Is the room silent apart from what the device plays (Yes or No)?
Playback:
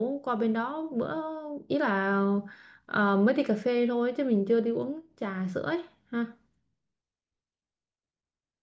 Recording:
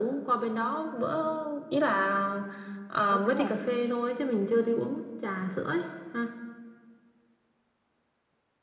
No